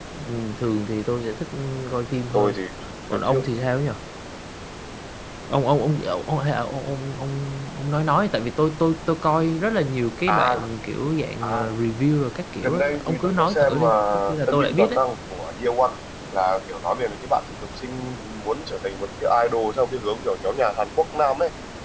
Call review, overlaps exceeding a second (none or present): present